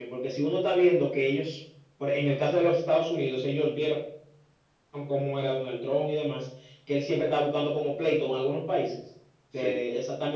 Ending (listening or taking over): listening